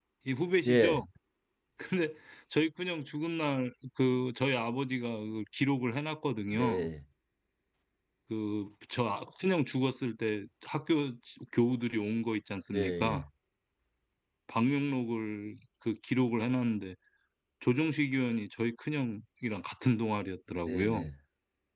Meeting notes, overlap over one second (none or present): none